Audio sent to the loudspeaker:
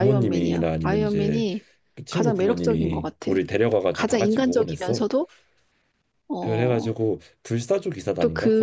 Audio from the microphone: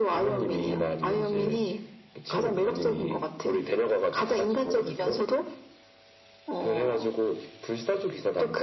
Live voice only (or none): none